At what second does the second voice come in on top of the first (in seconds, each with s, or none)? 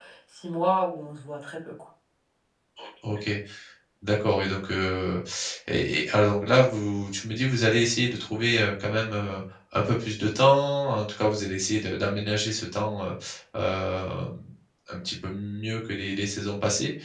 none